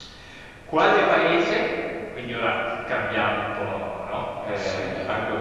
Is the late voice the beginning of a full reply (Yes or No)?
No